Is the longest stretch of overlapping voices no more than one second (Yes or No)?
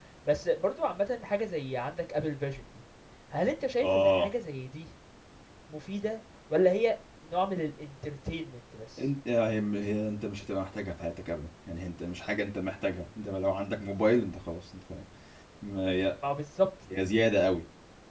Yes